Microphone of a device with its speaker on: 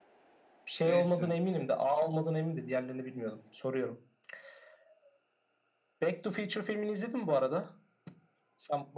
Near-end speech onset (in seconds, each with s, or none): 0.8 s